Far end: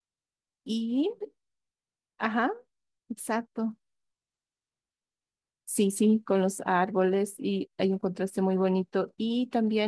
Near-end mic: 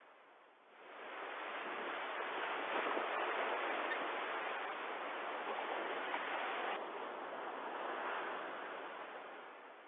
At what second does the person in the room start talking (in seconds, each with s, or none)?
none